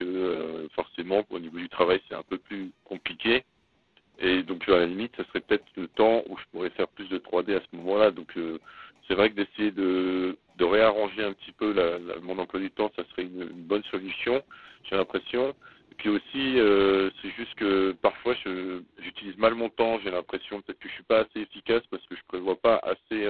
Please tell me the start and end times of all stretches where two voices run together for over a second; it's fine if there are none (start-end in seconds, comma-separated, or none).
none